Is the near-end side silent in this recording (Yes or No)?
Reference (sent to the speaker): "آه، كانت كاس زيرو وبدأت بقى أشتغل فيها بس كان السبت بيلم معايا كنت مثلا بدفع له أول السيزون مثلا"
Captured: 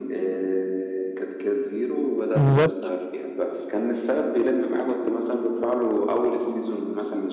No